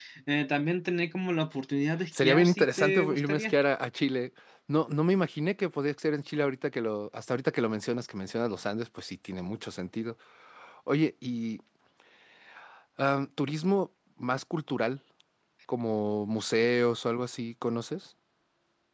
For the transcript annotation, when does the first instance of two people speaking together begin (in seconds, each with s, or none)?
2.1 s